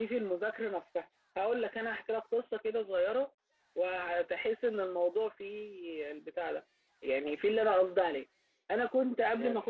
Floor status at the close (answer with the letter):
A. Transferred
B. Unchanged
B